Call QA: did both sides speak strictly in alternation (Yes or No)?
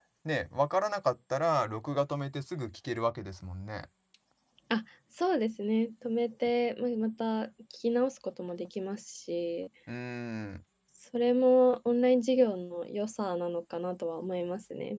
Yes